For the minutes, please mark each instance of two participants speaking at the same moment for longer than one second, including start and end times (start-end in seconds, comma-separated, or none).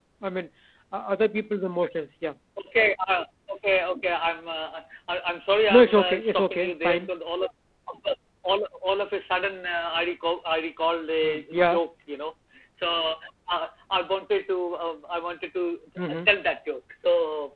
5.7-7.1